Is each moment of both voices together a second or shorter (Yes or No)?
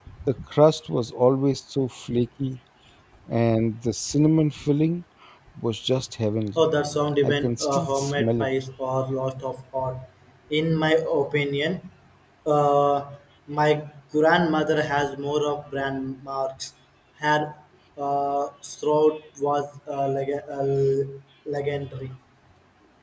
No